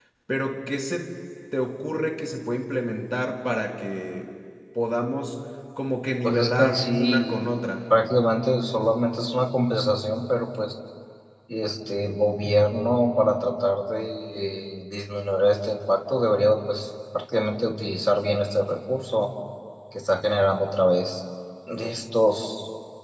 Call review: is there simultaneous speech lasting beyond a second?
Yes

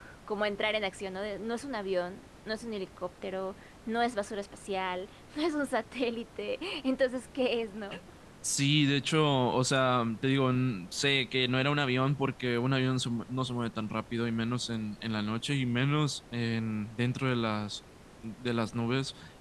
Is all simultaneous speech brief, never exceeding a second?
Yes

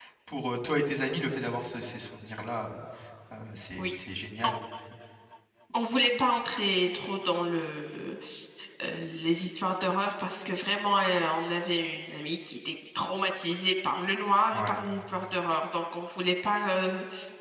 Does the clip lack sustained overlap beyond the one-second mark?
Yes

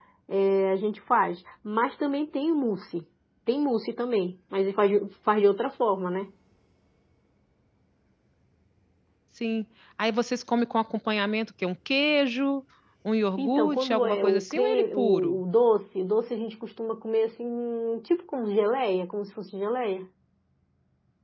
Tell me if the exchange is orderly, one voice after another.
No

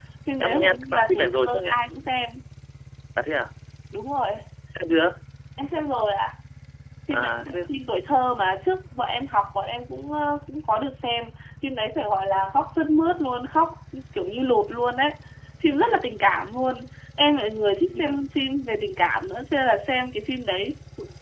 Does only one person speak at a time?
No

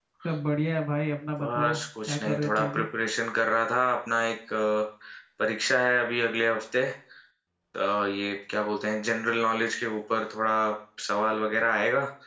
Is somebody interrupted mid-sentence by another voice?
Yes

